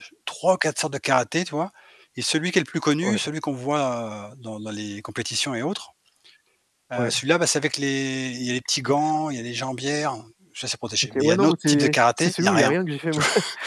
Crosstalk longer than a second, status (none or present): present